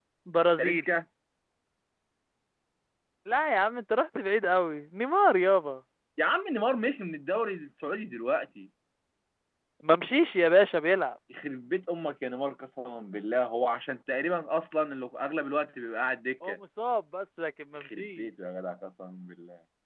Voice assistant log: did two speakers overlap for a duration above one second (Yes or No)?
No